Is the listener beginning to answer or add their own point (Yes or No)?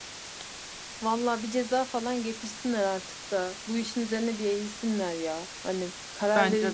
No